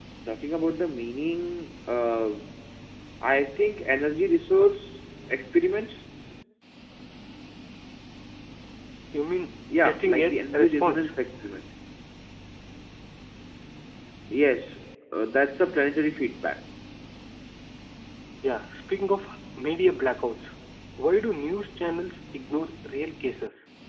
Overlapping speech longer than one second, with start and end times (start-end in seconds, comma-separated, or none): 9.8-11.1